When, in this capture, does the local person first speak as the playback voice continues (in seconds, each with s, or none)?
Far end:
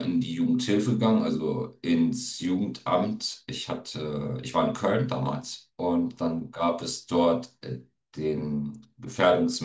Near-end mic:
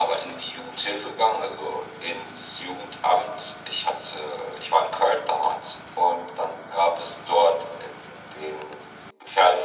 none